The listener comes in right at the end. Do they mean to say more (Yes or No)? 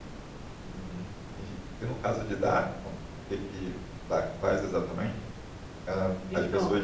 No